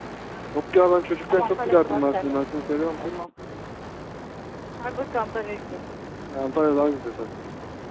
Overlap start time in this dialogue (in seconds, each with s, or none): 1.3 s